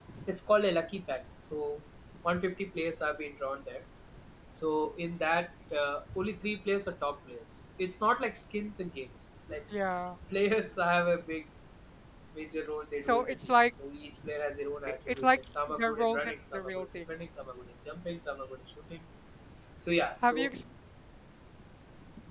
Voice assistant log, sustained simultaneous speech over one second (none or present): present